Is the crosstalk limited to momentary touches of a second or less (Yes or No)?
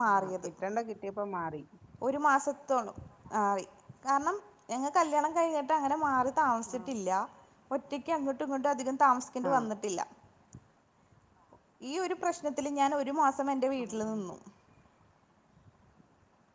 Yes